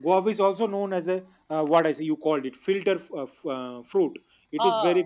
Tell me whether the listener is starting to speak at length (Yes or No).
No